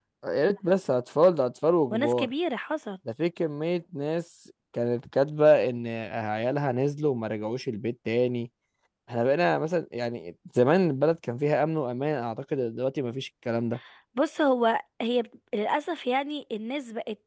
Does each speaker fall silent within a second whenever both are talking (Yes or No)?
Yes